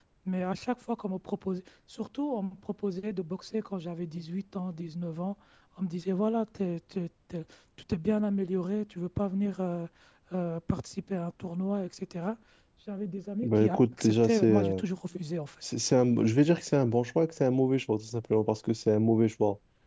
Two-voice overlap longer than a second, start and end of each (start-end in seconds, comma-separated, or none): 13.4-14.8